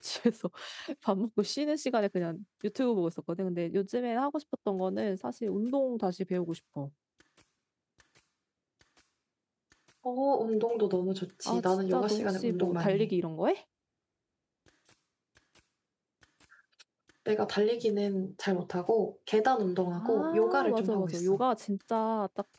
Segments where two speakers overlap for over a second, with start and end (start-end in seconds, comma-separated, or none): 11.4-13.1, 20.0-21.4